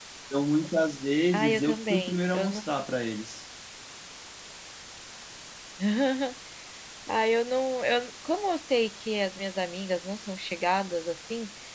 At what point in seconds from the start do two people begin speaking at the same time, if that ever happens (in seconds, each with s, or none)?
1.3 s